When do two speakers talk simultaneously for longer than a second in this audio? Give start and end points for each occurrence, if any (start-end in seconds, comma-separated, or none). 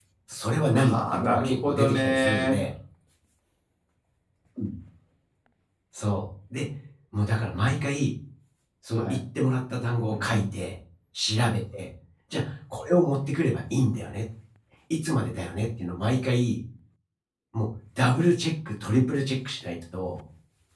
0.7-2.6